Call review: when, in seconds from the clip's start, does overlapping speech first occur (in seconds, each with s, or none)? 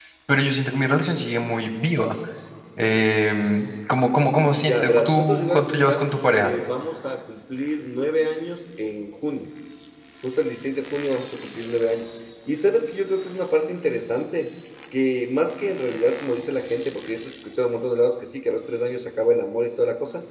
4.5 s